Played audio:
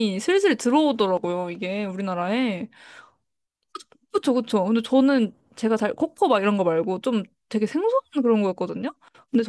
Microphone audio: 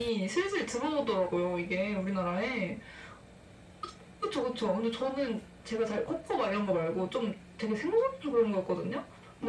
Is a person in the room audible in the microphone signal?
No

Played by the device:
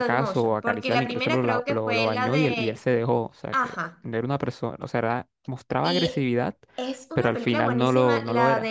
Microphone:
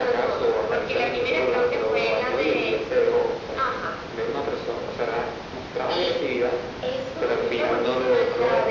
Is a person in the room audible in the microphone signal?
No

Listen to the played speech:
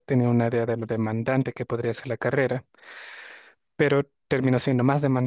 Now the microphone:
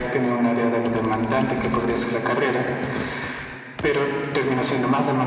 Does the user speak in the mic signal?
No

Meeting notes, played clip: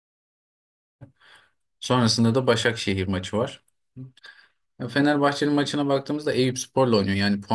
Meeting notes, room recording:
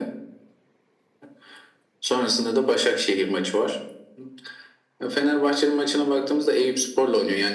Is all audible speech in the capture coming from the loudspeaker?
Yes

